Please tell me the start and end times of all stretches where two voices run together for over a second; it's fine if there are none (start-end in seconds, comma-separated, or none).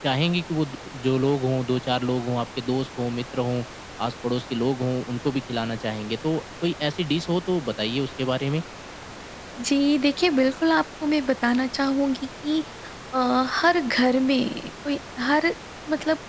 none